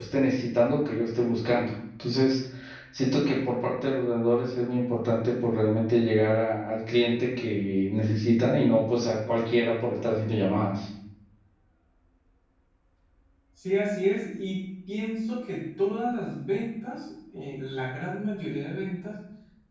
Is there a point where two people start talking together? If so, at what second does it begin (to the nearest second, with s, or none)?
none